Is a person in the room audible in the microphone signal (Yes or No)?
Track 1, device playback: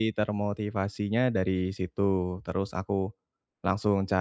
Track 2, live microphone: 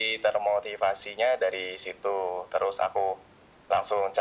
No